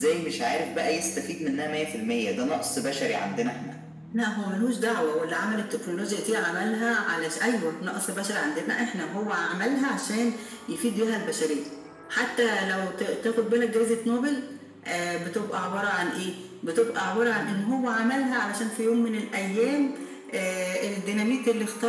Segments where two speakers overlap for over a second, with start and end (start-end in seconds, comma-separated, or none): none